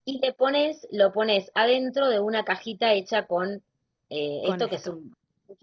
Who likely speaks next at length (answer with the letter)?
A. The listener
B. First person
B